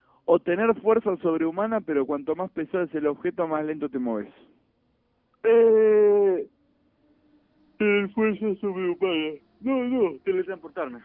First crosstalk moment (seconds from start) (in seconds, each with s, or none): none